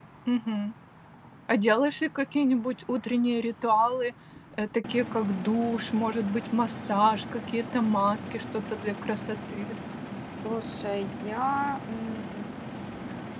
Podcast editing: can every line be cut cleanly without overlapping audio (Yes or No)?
Yes